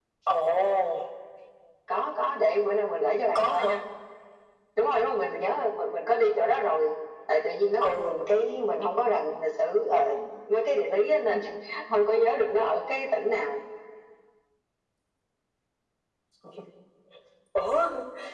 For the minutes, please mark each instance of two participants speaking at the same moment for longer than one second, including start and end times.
none

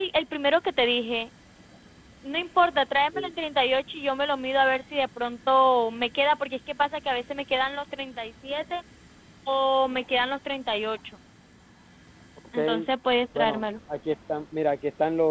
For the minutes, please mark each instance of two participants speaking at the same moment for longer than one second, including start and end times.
none

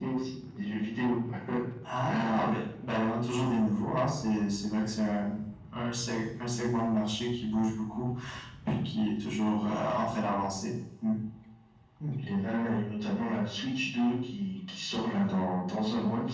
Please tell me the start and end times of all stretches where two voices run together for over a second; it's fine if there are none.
none

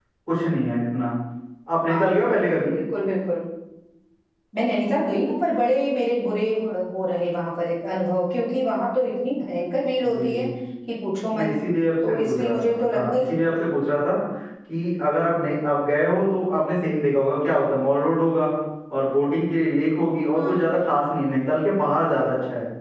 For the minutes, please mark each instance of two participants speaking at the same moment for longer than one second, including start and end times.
12.1-13.4

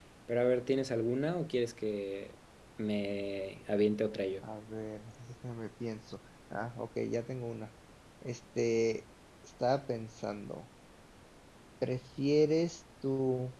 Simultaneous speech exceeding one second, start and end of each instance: none

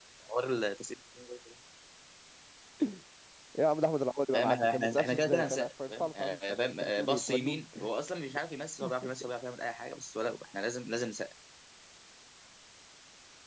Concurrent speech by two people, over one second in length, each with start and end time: 4.3-7.6

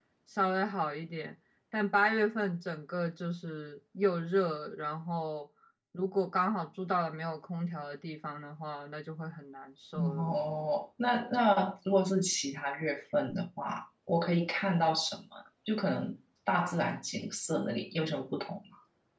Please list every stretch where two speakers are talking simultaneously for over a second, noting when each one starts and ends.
none

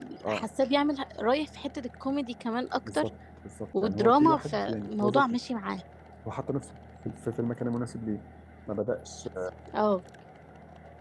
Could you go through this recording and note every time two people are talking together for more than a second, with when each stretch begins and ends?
3.8-5.4

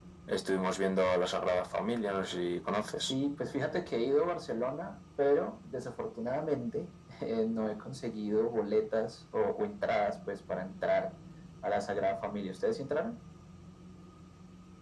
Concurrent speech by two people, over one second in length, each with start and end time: none

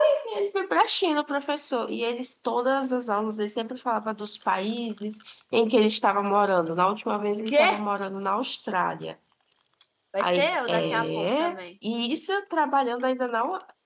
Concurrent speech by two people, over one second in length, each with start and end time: 10.2-11.6

